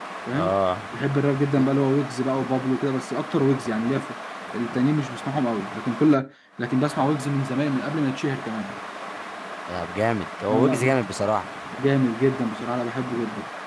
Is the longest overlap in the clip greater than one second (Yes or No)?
No